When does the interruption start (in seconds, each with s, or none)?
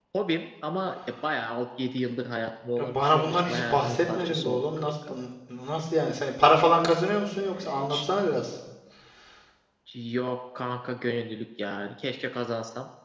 2.8 s